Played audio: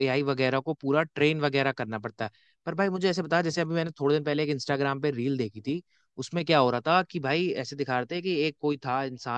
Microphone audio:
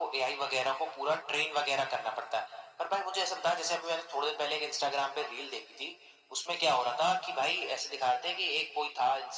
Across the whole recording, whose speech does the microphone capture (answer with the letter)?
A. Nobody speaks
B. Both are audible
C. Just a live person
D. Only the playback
D